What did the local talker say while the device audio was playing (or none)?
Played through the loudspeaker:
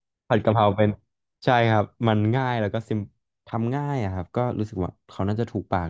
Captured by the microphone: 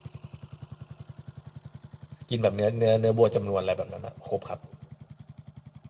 กินแบบเนื้อเนื้อเนื้อวัวจำนวนอะไรแบบนั้นนะครบครับ